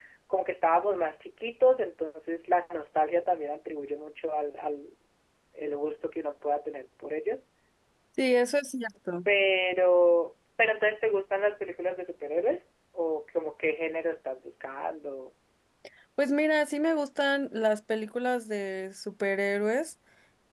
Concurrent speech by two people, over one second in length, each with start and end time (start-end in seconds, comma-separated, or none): none